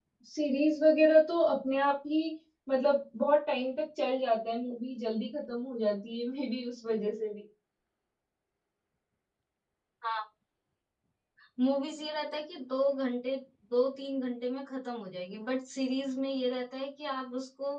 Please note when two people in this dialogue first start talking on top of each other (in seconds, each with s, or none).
none